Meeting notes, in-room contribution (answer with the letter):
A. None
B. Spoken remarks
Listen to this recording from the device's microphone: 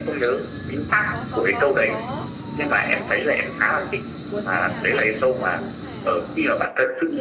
B